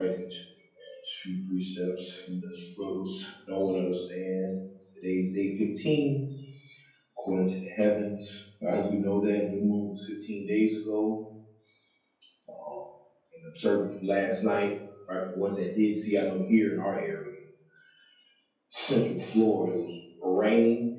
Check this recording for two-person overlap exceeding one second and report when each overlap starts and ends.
none

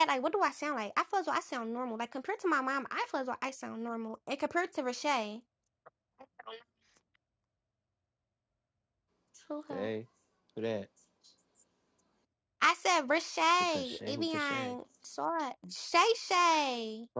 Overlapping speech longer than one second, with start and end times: 13.5-14.8

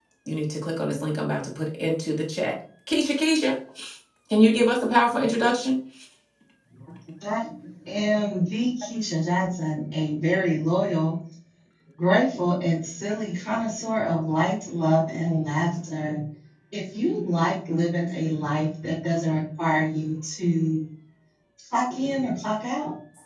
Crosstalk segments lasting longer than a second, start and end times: none

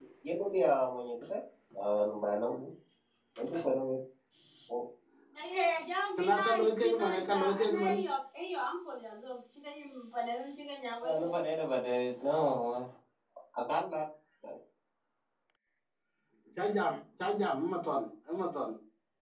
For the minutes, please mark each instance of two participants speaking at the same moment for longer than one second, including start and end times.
6.2-7.9

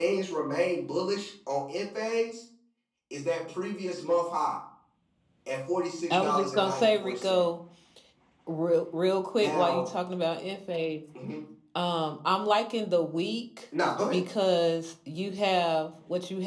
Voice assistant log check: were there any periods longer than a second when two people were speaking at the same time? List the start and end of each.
6.1-7.4

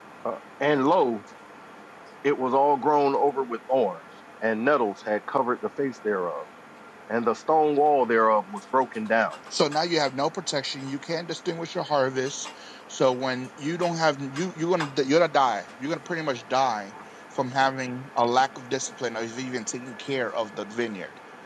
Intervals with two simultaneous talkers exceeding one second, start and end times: none

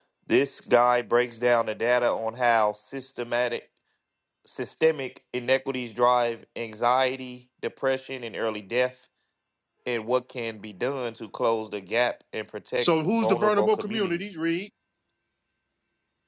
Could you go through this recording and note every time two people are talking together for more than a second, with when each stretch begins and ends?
12.8-14.2

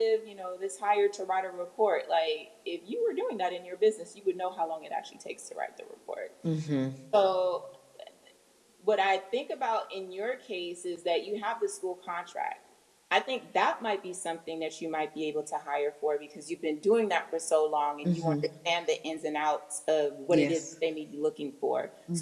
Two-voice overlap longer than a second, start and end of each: none

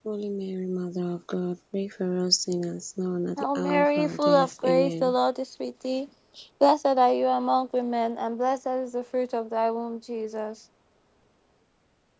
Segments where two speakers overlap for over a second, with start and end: 3.4-5.1

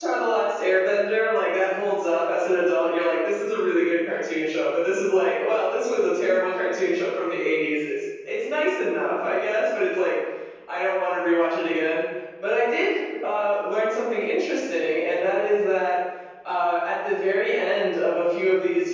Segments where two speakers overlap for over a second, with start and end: none

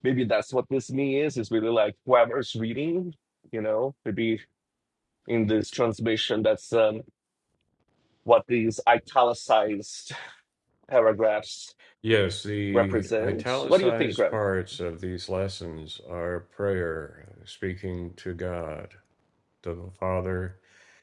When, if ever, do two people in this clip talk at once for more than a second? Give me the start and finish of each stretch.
12.7-14.3

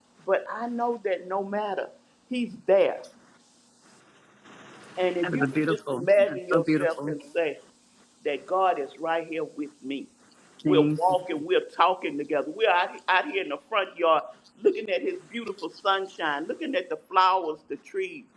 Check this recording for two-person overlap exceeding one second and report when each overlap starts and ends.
5.2-7.1

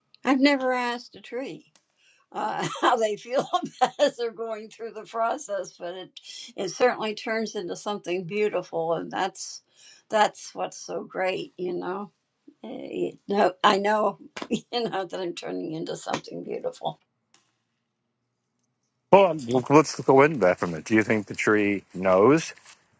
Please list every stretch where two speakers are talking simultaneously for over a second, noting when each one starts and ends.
none

